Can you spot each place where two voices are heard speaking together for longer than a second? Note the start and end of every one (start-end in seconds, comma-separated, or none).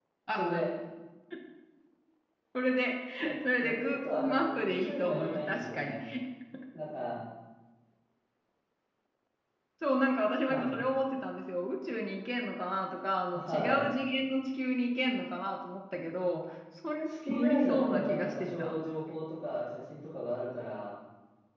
3.6-5.9, 17.3-18.7